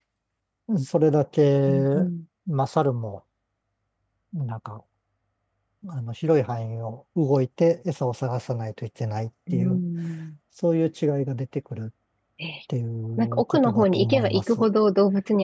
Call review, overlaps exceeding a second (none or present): present